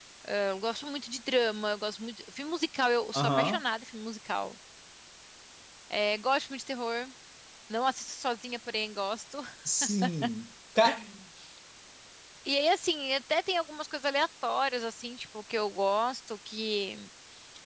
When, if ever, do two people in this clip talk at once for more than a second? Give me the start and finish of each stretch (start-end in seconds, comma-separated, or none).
none